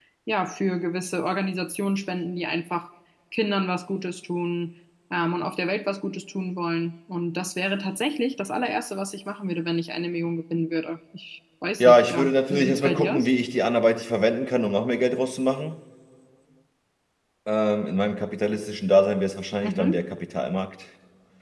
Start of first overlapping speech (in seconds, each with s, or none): 11.8 s